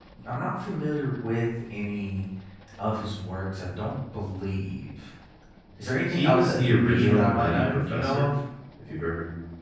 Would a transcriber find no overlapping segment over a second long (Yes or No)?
No